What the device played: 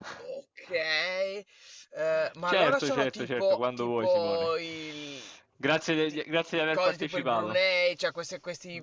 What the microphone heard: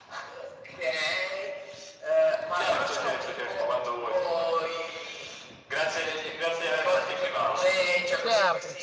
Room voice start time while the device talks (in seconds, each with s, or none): 7.5 s